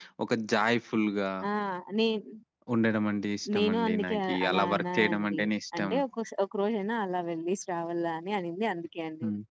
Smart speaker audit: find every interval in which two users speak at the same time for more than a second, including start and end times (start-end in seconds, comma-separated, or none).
3.5-5.4